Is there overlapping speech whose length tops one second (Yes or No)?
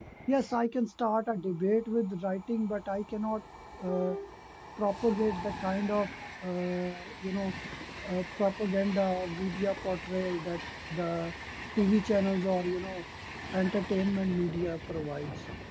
No